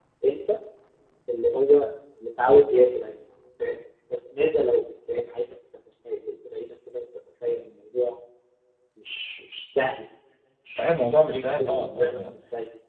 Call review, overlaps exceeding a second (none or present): present